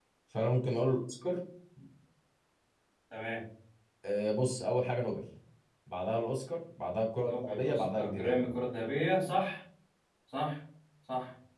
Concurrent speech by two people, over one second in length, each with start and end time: 7.2-8.5

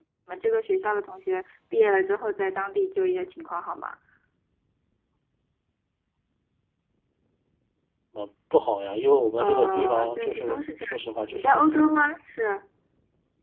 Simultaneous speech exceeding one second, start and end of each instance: 9.4-11.9

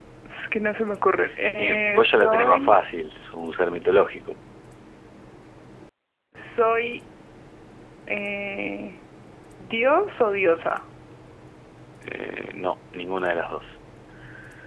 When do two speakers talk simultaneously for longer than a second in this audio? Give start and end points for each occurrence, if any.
1.5-2.8

